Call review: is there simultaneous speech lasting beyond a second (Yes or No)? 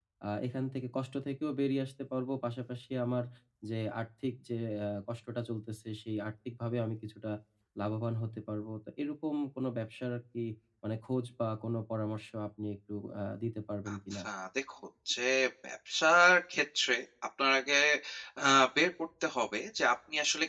No